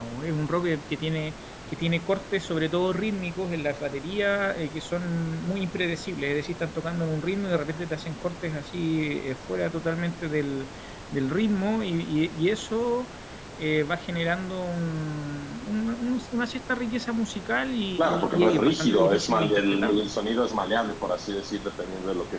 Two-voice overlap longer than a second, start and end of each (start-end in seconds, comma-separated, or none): 18.0-20.1